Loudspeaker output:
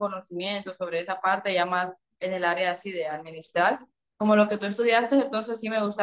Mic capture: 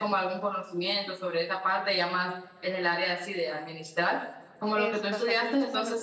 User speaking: Yes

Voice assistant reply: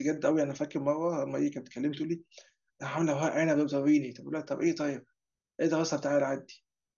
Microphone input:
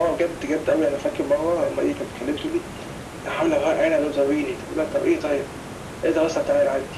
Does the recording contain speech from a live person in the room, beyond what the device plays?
No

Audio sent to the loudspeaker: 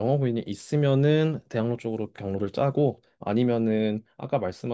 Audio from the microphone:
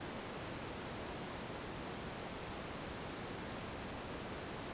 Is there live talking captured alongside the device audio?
No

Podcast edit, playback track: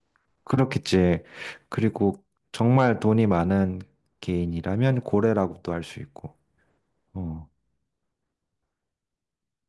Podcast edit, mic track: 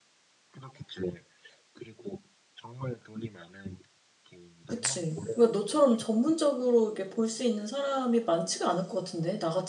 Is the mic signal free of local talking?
No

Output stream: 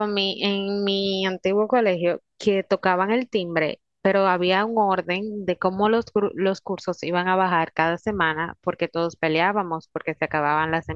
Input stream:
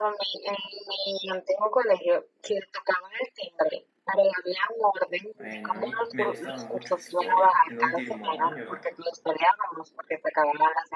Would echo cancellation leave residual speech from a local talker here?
Yes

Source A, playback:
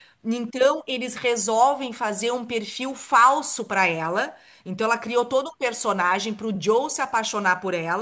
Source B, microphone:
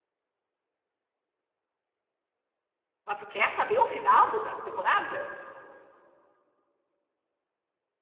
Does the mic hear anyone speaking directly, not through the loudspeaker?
Yes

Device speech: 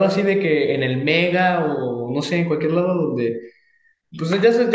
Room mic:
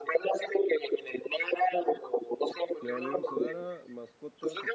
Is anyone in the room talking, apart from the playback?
Yes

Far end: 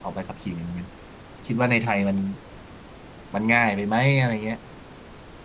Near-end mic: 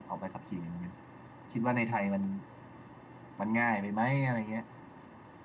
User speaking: No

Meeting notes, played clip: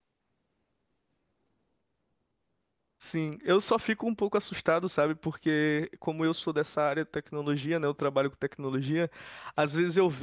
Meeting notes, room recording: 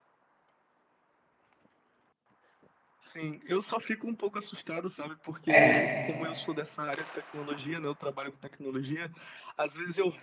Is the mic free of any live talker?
No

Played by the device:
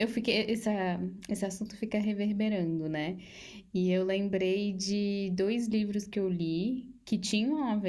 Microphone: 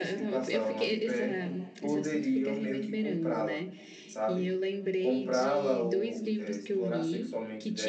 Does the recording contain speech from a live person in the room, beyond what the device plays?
Yes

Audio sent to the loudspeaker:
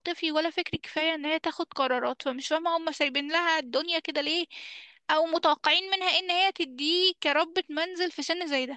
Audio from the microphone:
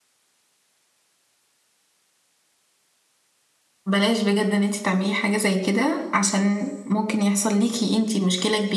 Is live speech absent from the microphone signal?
No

